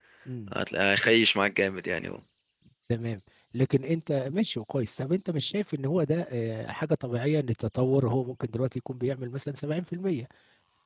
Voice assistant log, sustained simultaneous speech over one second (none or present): none